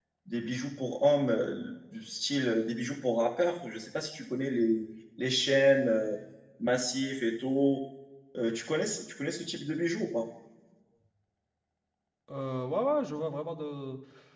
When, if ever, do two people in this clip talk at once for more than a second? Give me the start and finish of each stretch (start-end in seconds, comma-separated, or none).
none